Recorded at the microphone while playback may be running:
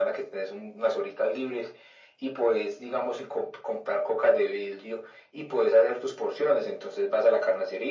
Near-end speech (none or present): none